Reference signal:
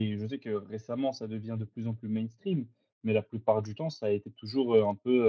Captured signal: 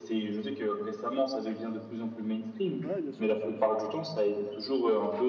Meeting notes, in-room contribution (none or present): present